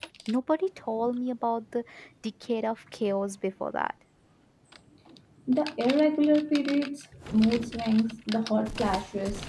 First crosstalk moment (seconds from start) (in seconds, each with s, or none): none